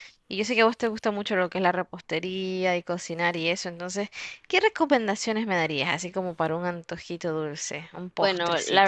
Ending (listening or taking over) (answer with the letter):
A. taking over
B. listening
A